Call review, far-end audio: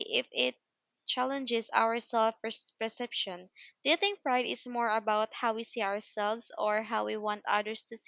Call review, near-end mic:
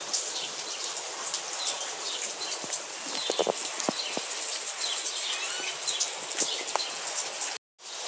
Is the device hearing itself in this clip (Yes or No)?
No